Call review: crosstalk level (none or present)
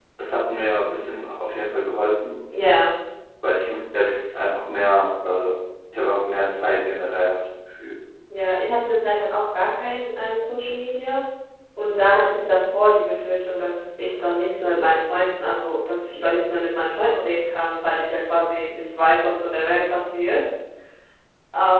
none